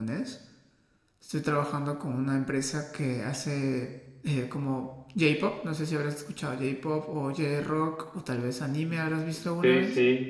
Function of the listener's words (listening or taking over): taking over